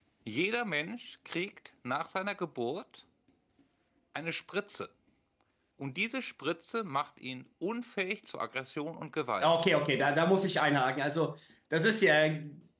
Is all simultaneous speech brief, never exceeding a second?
Yes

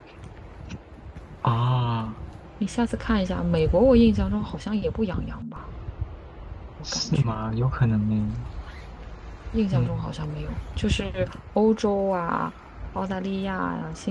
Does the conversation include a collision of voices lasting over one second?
No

